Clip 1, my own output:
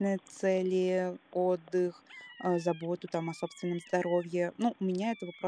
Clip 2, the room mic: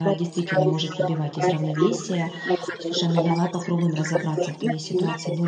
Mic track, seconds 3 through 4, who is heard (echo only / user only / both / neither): both